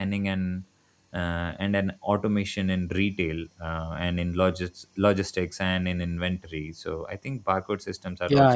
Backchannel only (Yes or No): No